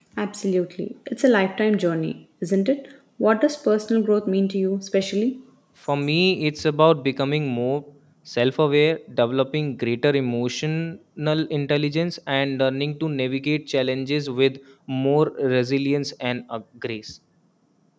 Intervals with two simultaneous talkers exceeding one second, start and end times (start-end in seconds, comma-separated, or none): none